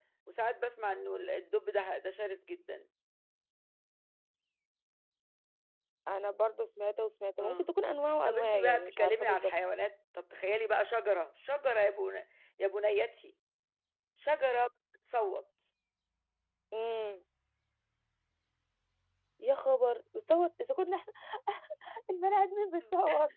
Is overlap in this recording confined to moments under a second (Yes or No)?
No